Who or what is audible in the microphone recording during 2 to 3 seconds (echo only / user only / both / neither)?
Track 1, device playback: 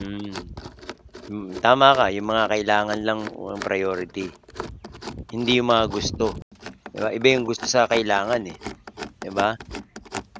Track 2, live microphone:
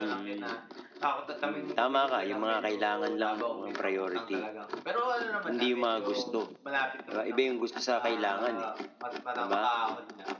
both